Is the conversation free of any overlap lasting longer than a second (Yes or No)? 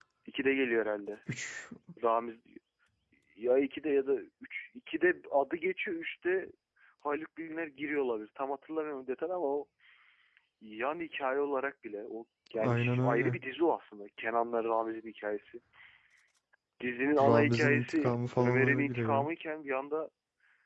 No